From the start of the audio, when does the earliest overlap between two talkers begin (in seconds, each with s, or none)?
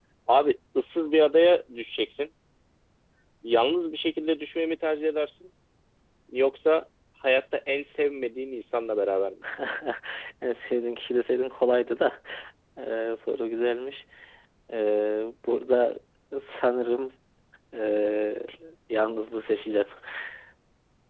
none